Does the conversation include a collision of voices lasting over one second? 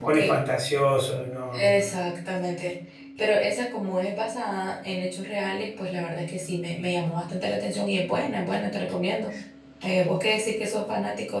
No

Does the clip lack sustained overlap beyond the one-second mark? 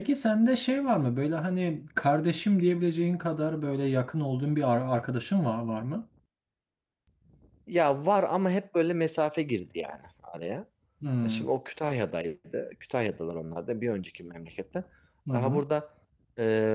Yes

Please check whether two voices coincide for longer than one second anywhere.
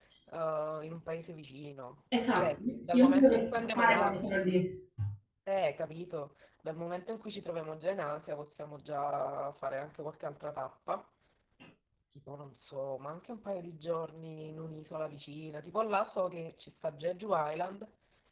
Yes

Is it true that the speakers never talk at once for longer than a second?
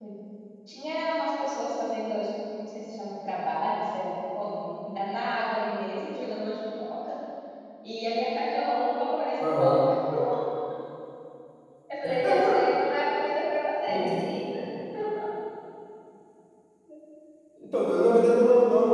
Yes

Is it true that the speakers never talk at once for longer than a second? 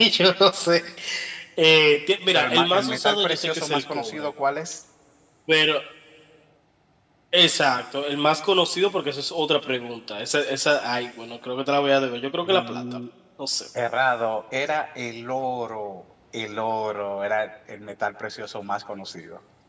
No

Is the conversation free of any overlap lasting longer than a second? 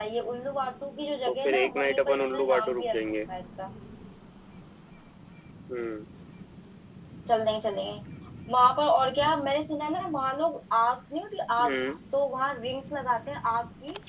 No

